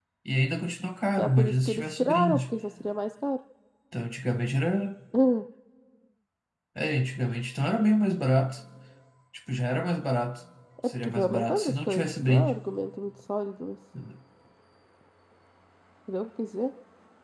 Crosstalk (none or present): present